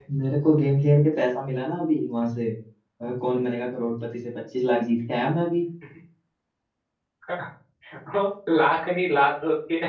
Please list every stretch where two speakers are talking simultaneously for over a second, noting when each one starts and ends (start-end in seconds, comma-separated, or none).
none